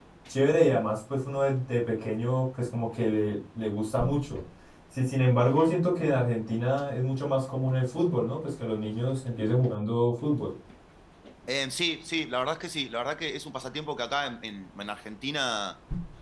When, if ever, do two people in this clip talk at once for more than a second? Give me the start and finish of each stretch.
none

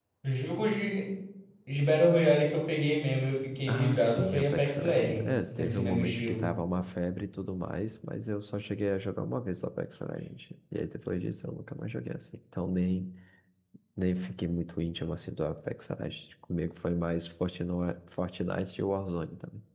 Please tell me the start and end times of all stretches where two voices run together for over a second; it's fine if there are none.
3.7-6.5

